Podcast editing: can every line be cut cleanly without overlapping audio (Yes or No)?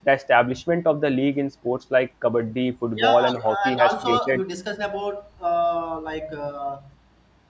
No